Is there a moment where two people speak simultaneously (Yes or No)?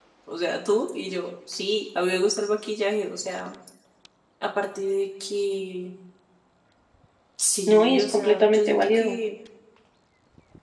Yes